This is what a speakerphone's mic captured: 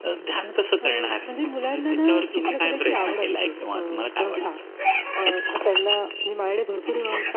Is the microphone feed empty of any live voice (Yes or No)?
Yes